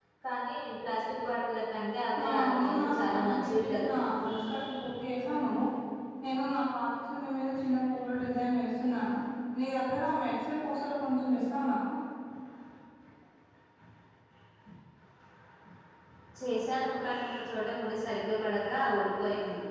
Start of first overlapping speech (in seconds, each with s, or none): 2.2 s